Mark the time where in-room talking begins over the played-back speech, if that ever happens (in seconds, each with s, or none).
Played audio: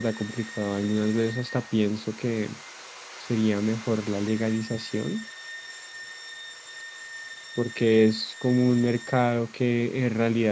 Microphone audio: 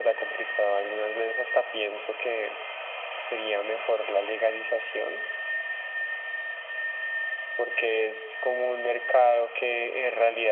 none